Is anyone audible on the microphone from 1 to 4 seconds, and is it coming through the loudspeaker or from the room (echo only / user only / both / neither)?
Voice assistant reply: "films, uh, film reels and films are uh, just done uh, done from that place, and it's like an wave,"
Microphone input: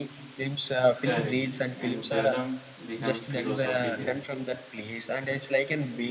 both